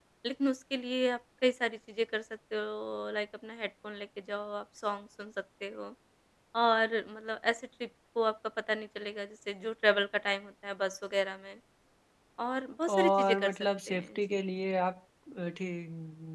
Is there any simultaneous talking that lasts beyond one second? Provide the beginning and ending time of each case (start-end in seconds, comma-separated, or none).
12.9-14.2